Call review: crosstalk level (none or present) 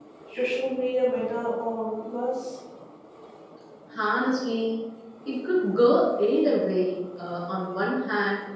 none